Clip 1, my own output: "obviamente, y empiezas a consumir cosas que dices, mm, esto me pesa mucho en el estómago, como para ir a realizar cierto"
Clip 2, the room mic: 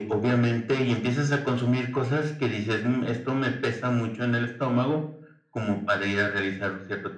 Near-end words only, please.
none

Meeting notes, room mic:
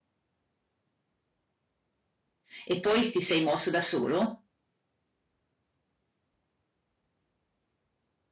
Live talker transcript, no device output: E poi s ti sei mosso da solo?

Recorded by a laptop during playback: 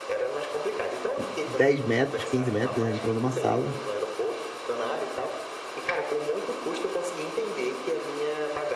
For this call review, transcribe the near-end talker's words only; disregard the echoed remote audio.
10 metros, 15 metros, ele entrou em uma sala

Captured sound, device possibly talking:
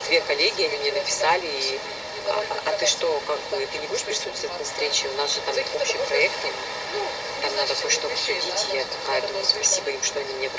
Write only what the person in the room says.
none

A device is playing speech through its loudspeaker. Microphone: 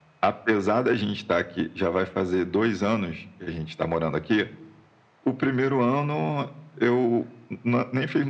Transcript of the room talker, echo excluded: none

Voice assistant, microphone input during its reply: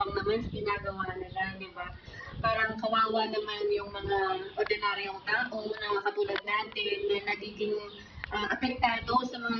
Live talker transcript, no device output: none

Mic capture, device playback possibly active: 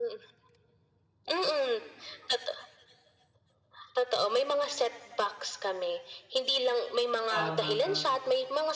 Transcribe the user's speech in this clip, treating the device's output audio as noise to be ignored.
Tama, tama.

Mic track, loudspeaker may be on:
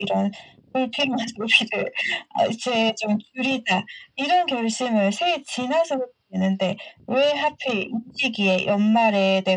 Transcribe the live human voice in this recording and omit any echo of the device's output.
none

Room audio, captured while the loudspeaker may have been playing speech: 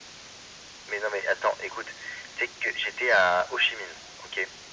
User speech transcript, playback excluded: none

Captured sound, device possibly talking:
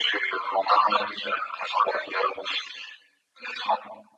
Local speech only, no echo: none

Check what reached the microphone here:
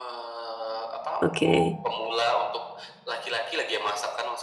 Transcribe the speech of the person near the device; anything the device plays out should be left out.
Oke.

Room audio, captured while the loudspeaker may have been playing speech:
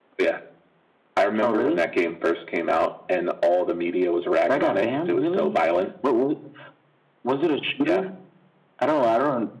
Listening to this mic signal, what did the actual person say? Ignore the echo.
none

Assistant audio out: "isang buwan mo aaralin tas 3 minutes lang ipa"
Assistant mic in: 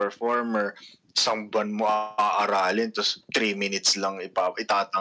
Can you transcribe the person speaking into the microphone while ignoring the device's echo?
none

